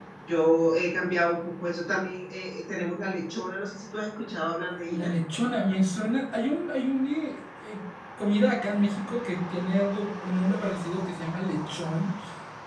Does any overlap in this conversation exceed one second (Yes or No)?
No